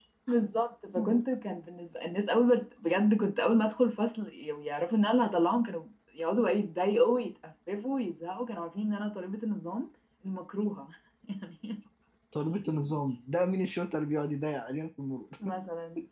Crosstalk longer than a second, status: none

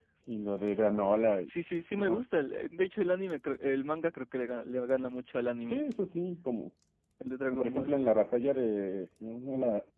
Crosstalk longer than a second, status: none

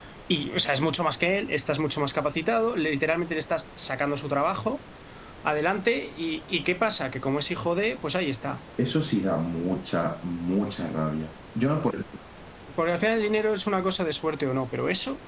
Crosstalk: none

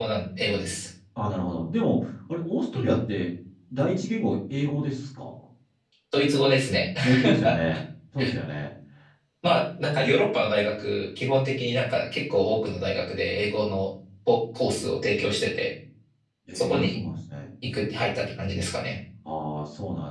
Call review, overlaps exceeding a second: none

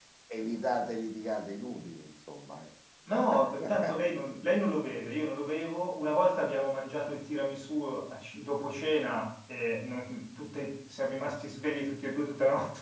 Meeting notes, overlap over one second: none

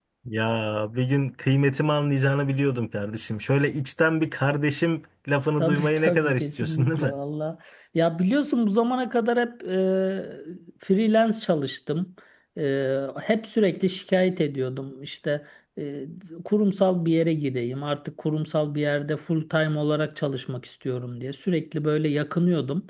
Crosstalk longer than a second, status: present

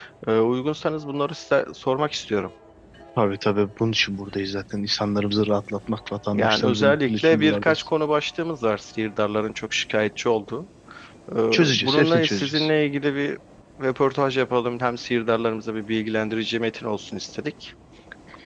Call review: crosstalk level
present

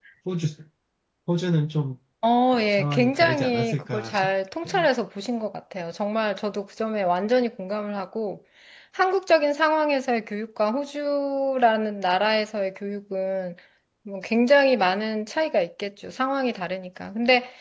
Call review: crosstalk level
present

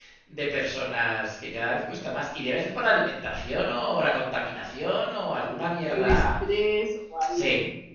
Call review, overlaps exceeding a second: none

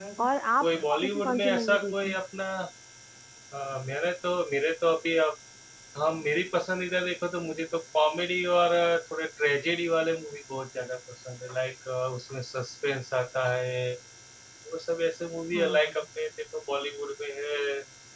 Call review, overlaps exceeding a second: present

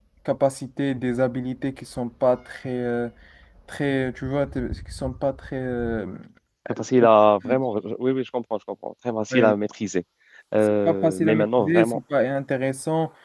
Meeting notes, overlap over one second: present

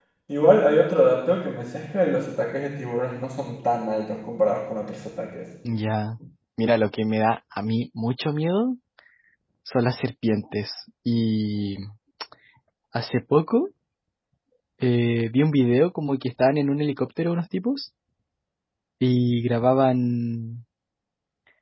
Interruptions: none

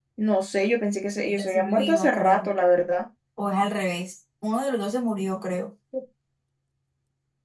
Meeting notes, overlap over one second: present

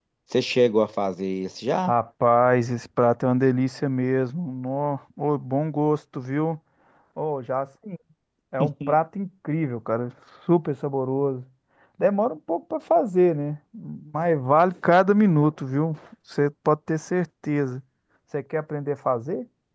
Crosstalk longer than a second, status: none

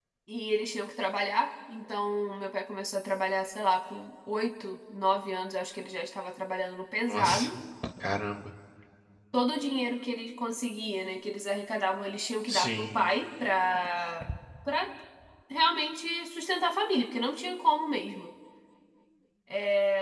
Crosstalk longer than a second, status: none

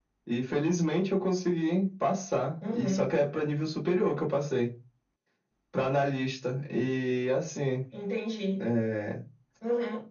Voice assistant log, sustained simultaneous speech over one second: none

